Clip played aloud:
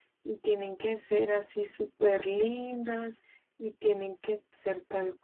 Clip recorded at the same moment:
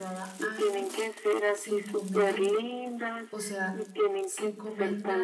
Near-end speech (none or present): present